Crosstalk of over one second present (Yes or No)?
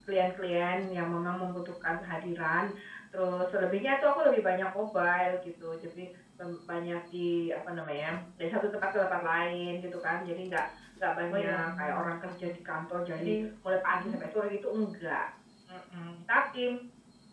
Yes